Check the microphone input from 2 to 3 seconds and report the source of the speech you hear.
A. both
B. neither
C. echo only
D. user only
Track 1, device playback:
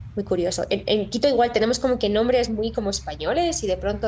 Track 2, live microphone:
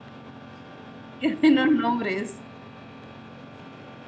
D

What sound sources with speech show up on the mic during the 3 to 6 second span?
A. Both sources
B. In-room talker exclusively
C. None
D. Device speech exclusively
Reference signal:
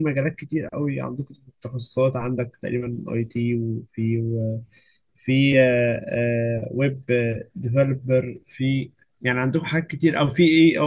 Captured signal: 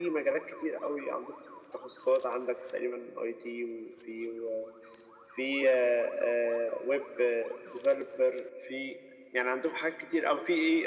D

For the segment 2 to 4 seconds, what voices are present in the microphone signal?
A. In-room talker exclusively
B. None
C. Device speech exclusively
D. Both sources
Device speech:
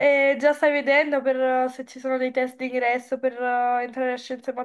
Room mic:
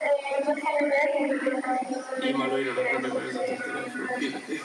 D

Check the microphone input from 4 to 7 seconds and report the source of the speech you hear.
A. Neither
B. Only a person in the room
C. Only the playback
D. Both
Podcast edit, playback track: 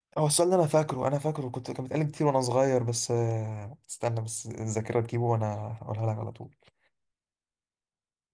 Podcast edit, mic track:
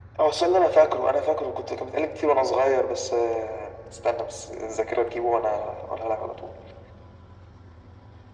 C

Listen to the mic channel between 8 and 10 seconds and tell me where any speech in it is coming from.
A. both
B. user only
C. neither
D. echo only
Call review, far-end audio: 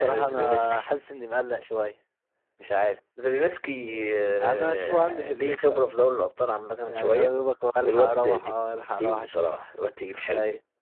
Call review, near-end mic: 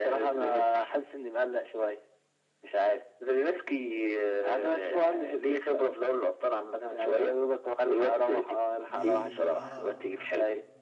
A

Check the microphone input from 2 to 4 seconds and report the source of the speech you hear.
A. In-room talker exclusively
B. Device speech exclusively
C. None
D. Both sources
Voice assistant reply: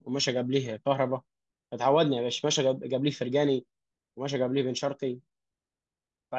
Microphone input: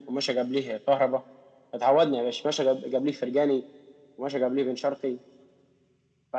B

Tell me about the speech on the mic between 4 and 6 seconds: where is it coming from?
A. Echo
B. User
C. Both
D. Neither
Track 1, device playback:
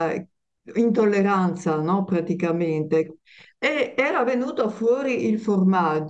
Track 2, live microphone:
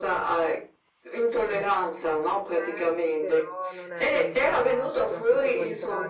C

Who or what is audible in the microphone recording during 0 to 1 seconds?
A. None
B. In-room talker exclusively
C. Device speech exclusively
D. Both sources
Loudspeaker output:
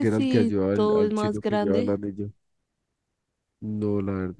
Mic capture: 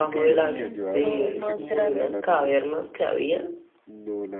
D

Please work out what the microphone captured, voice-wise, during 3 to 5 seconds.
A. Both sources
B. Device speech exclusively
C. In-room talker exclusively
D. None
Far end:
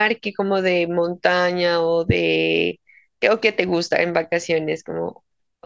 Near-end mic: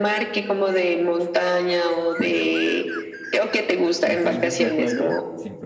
A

